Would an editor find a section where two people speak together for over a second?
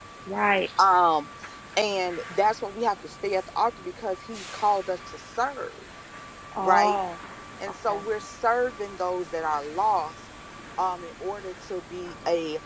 No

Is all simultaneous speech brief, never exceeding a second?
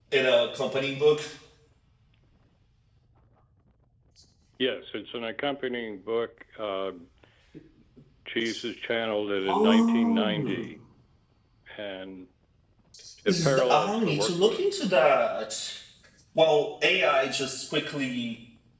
No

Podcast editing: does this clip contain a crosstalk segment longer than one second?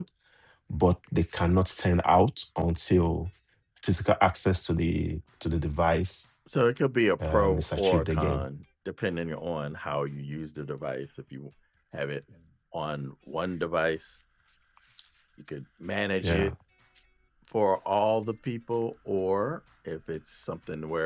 Yes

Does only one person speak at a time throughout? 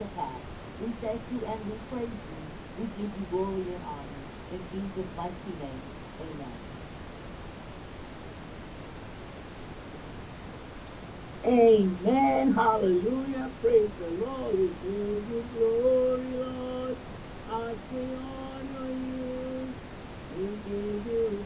Yes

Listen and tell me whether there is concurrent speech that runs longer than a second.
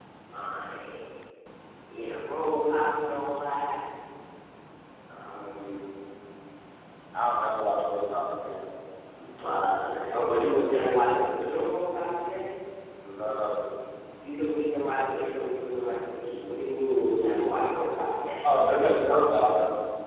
No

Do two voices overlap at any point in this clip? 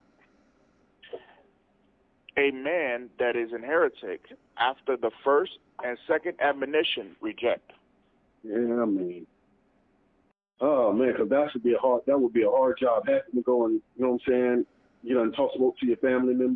No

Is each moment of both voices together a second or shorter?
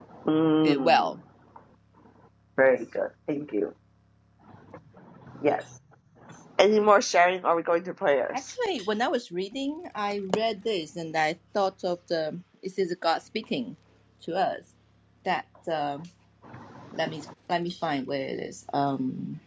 Yes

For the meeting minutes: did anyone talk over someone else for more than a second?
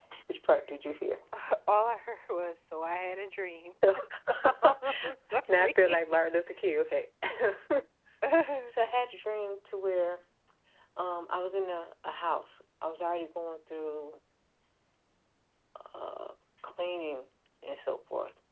Yes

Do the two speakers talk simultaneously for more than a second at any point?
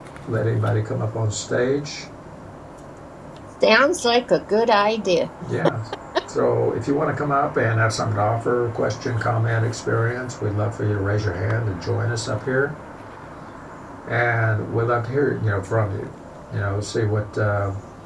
No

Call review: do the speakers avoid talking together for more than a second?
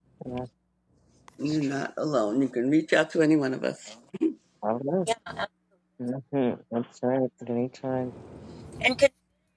Yes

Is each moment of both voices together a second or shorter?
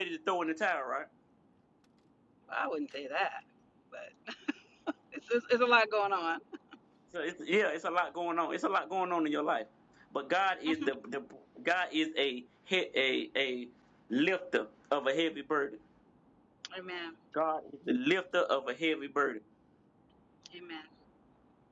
Yes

